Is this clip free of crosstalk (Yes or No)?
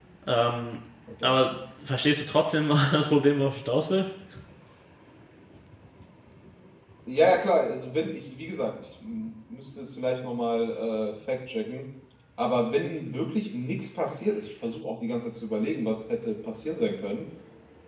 Yes